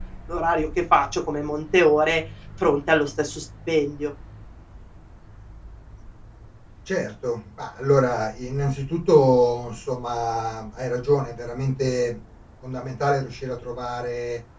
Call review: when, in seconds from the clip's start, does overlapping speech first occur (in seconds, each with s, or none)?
none